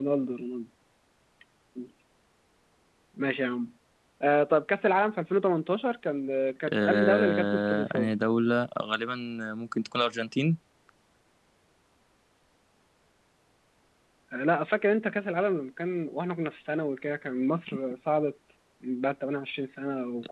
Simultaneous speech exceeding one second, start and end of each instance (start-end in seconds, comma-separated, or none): 6.8-8.1